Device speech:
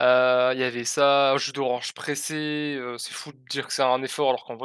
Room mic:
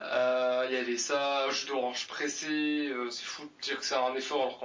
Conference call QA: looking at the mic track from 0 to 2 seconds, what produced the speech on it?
echo only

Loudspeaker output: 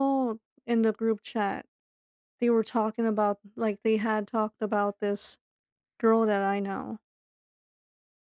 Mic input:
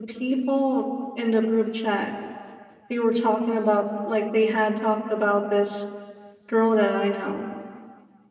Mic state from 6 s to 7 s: echo only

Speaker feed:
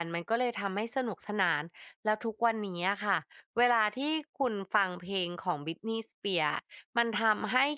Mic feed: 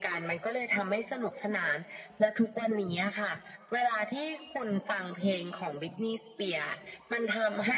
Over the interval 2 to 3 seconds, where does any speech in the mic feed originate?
echo only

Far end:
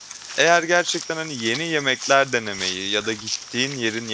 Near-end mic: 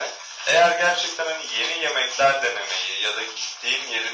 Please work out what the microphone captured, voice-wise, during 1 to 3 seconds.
echo only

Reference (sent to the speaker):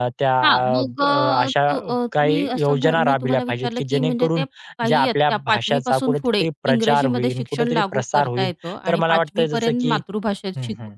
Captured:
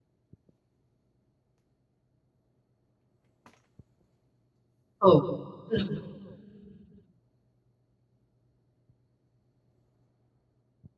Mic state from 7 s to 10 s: neither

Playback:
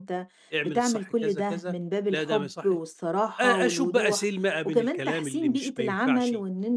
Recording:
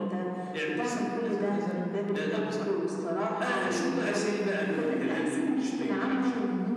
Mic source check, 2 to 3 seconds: echo only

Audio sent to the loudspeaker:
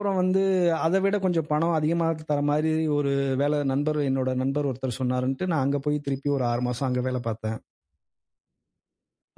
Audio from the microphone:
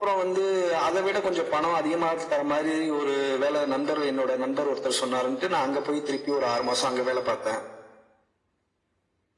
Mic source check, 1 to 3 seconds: echo only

